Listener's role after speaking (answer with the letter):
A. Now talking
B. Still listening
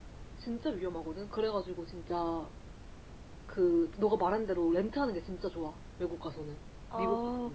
A